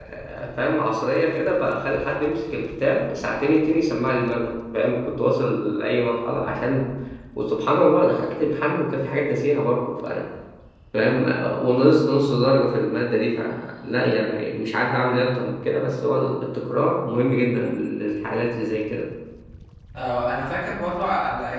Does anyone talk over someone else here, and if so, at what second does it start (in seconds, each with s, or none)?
none